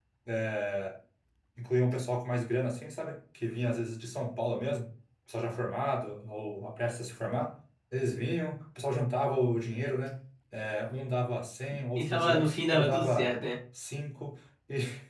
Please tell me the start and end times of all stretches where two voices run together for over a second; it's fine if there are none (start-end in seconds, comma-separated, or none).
12.0-13.3